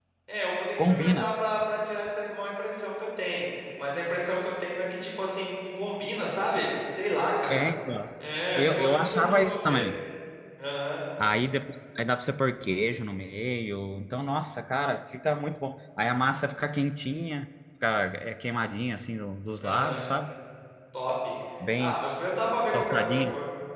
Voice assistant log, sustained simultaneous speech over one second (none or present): present